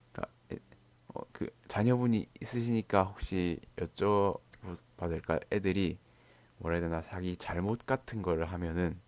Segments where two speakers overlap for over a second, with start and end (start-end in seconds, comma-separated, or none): none